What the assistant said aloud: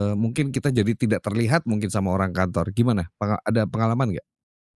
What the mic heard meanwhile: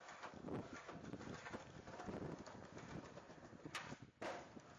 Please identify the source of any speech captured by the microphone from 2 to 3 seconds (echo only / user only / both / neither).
neither